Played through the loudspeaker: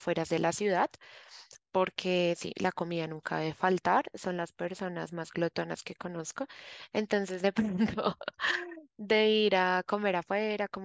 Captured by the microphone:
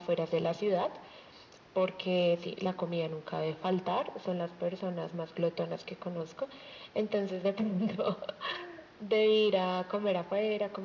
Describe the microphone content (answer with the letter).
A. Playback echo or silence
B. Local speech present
A